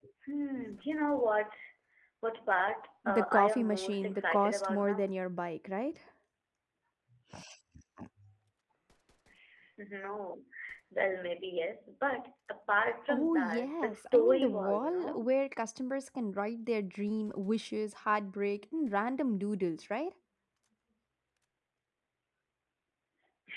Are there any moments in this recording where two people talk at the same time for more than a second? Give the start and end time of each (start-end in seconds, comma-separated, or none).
3.1-5.1, 13.1-15.2